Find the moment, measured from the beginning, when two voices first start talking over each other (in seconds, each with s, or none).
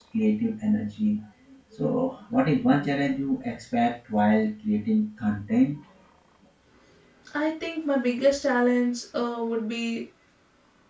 none